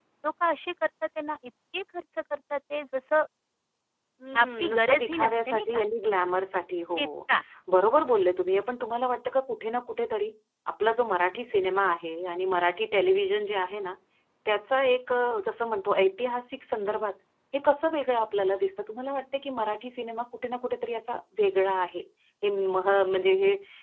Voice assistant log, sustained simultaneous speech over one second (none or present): present